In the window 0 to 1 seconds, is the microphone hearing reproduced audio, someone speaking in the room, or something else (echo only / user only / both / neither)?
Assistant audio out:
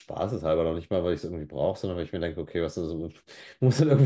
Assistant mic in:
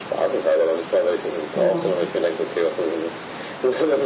echo only